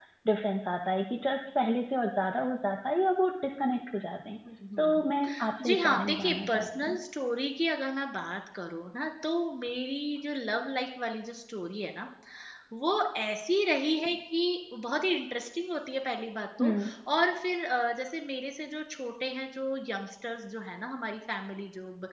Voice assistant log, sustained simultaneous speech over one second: present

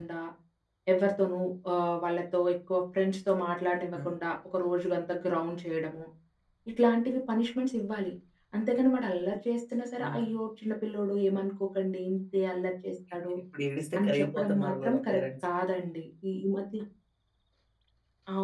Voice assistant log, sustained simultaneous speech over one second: present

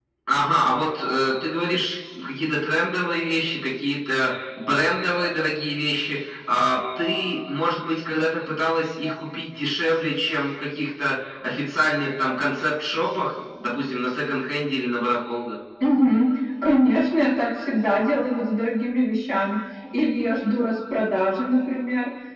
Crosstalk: none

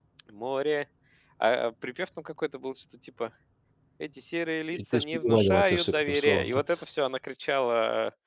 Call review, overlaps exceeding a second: present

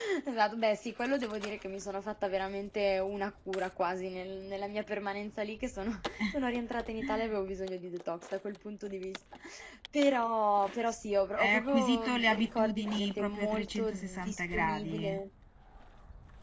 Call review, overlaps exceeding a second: present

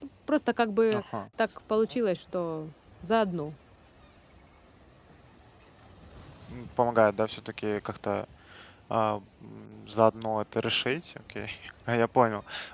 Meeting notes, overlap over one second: none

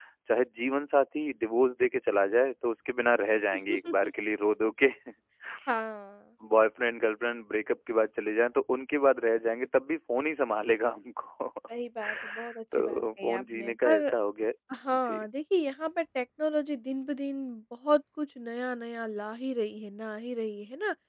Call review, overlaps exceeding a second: present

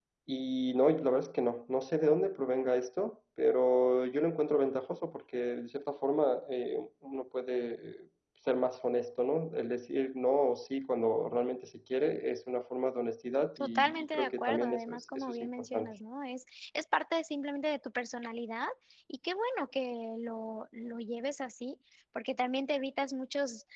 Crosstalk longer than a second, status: present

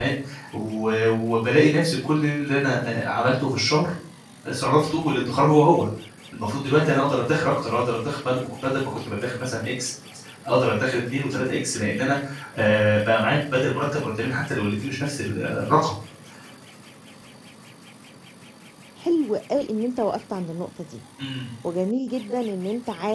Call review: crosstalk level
none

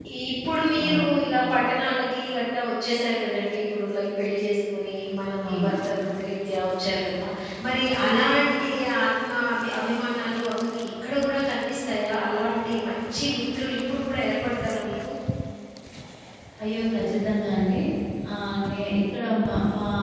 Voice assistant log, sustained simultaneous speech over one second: none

